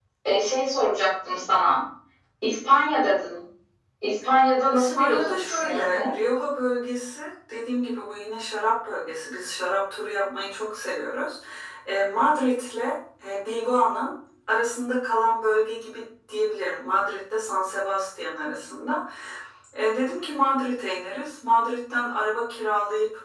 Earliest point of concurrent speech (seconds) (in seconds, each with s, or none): 4.7 s